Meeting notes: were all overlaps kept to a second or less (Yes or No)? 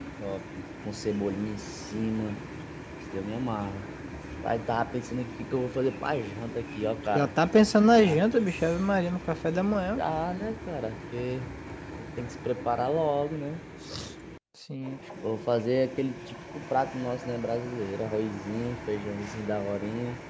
Yes